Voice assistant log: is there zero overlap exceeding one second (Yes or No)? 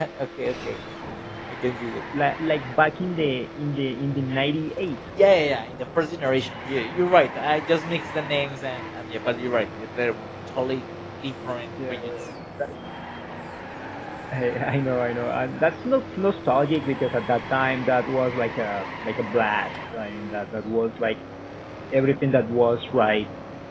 Yes